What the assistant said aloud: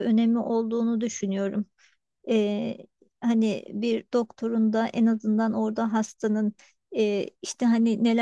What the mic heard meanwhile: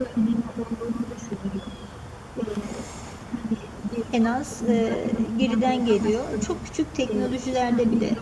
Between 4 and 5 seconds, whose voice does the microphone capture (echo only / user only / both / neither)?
both